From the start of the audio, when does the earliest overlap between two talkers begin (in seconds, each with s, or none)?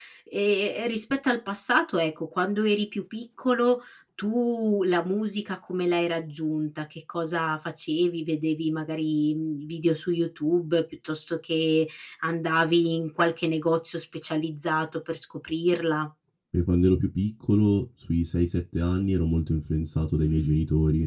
none